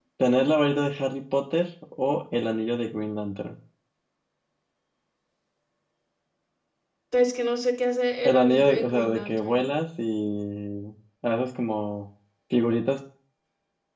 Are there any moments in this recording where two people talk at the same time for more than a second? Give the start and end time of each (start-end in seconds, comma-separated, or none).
8.2-9.6